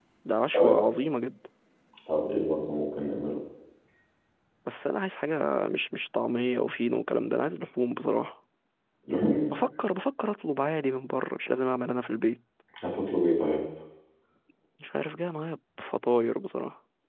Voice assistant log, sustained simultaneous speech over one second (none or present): none